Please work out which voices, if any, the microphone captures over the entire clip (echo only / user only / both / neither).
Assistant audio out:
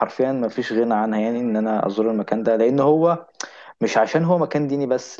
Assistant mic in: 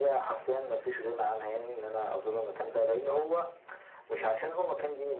echo only